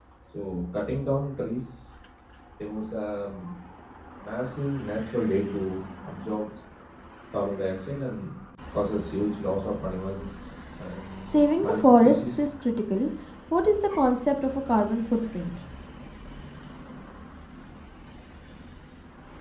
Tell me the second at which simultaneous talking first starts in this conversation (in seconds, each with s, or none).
11.2 s